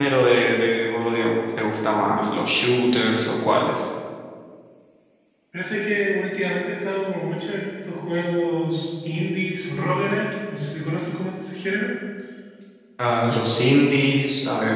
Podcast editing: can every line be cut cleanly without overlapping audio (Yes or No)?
Yes